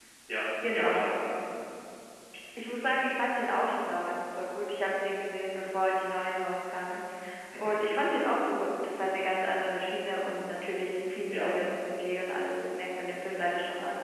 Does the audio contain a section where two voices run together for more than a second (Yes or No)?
No